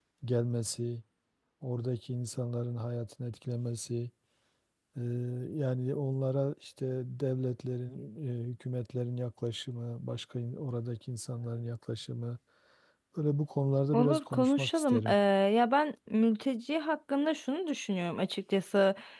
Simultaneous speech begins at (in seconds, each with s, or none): 13.9 s